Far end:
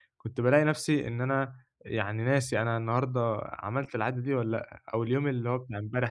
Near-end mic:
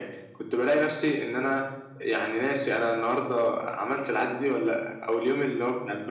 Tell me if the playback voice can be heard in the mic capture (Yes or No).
Yes